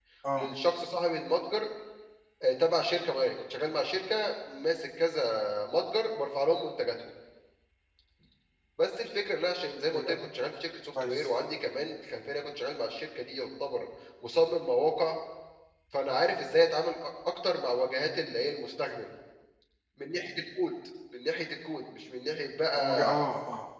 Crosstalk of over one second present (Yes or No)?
No